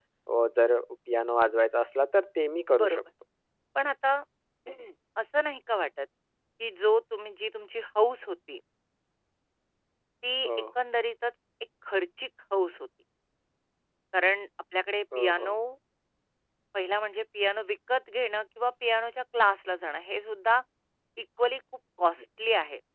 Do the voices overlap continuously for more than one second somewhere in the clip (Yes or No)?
No